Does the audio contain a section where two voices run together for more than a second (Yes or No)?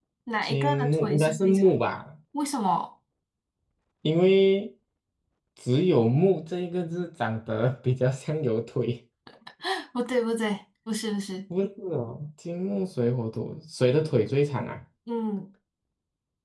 Yes